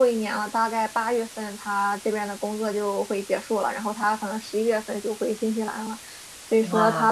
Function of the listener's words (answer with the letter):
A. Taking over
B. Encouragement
B